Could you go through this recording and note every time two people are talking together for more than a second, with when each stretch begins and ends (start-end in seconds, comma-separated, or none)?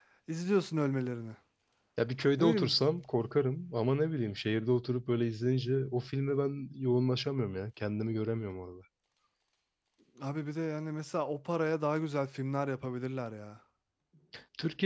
none